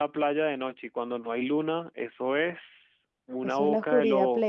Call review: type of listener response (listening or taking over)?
taking over